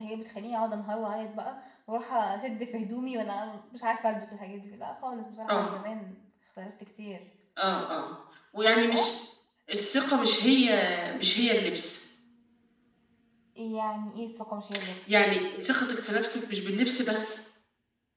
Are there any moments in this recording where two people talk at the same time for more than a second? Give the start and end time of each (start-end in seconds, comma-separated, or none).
none